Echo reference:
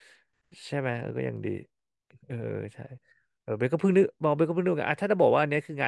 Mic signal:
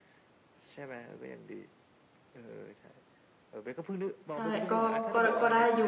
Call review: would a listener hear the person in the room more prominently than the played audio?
Yes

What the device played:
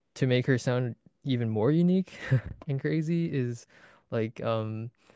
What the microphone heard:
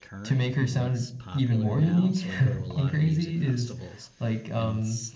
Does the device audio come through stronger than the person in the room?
Yes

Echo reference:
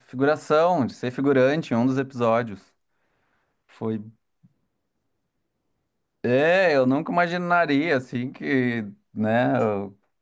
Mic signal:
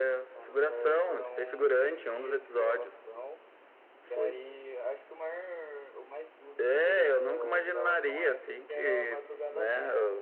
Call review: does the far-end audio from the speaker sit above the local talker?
Yes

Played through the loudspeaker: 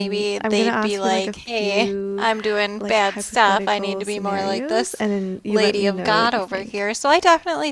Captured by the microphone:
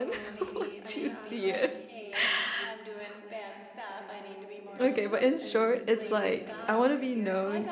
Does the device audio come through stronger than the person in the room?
No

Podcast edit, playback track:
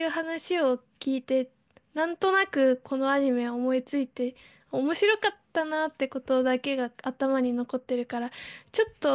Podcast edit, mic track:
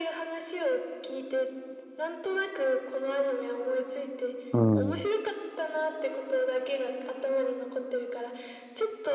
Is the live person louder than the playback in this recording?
Yes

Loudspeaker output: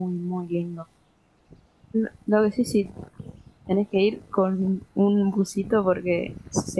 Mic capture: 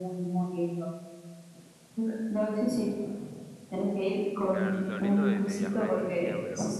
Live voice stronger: No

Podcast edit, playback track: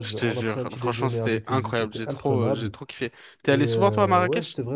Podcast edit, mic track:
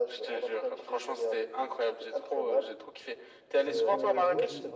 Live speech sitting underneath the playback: Yes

